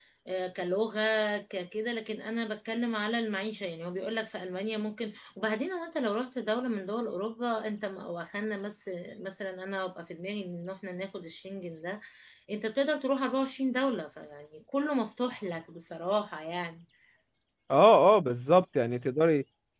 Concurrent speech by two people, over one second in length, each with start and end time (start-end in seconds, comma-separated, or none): none